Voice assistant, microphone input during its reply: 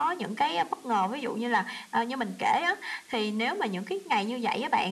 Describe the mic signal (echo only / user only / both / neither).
echo only